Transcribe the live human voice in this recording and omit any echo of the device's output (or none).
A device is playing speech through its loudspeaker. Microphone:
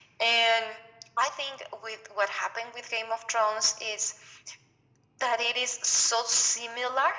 none